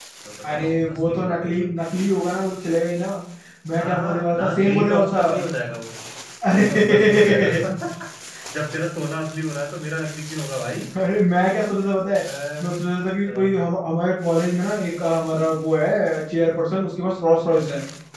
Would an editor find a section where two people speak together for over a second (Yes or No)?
Yes